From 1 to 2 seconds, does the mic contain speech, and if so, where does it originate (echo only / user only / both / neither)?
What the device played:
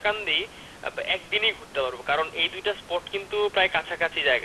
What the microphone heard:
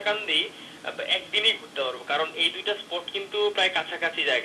echo only